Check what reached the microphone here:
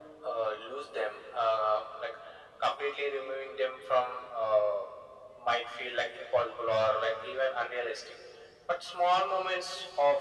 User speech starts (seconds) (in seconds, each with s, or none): none